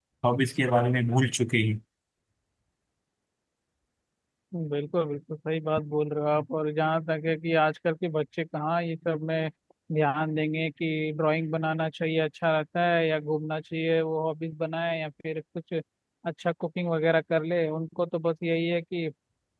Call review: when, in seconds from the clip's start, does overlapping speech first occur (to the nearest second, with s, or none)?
none